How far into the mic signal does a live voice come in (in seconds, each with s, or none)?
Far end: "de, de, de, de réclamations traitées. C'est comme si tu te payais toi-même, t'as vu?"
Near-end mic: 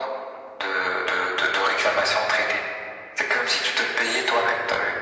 none